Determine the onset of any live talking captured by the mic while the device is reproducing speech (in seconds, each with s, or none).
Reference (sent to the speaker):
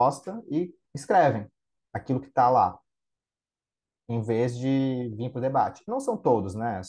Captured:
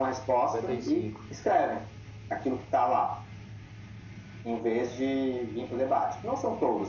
0.4 s